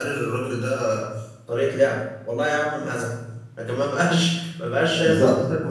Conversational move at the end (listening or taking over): listening